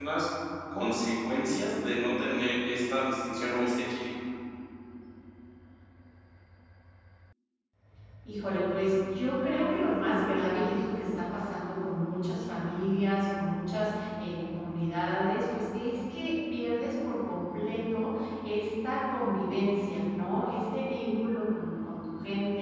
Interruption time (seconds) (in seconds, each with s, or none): none